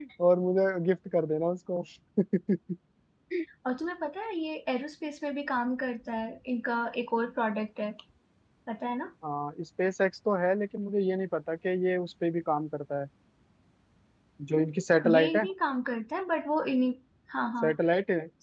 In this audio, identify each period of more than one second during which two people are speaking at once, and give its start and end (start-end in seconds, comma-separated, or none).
none